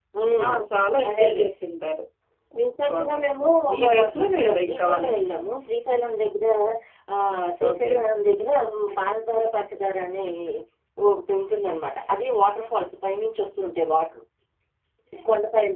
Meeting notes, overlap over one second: present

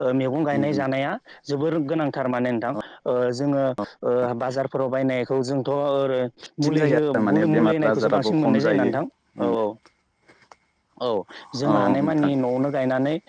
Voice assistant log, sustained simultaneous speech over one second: present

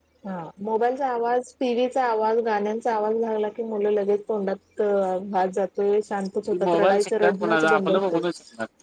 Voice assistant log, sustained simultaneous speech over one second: present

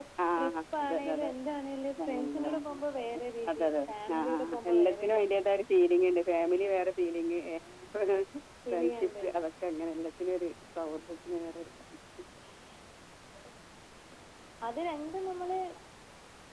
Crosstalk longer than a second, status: present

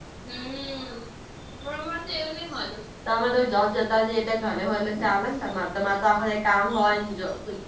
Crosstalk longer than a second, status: none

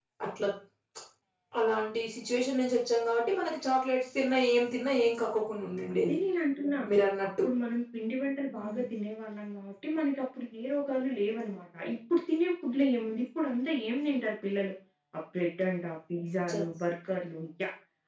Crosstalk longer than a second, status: none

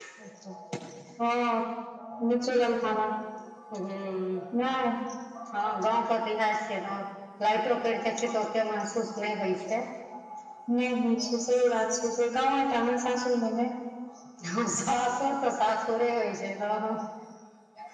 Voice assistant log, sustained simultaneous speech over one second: none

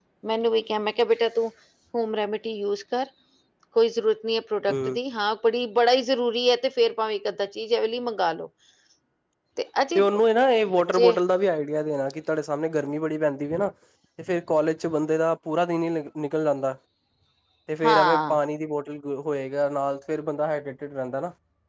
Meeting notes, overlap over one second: none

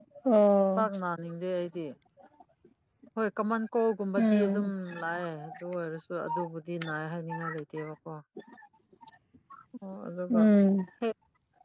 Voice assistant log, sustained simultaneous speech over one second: none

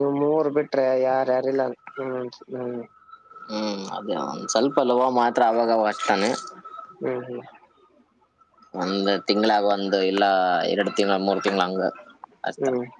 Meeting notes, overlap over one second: none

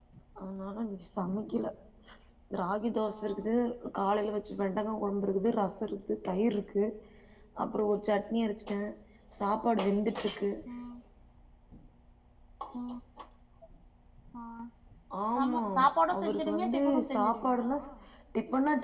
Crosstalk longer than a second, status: present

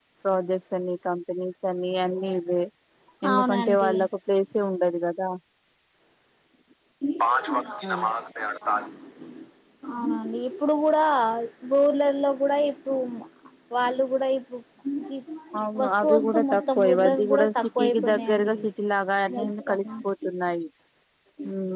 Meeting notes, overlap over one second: present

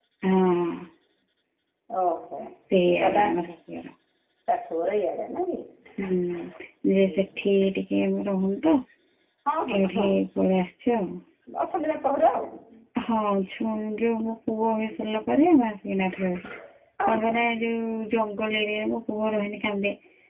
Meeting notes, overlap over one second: none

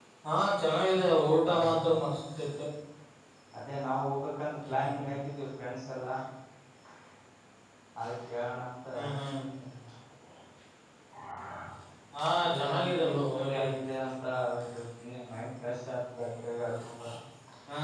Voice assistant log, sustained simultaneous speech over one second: present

